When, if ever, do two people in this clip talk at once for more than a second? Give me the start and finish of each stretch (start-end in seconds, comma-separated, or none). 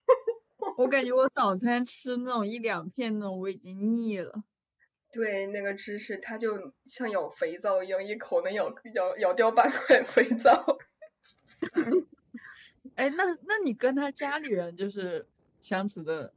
none